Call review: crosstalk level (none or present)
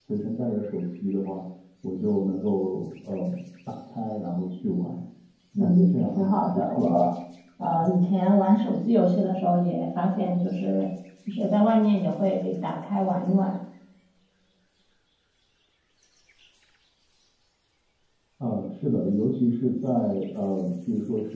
present